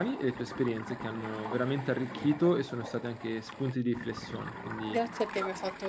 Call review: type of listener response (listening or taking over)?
taking over